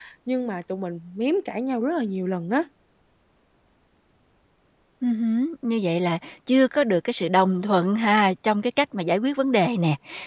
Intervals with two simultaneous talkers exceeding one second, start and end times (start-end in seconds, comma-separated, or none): none